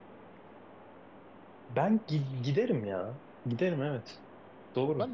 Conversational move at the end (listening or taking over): taking over